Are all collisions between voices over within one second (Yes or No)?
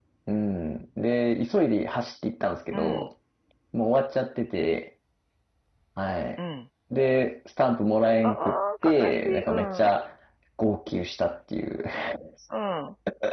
No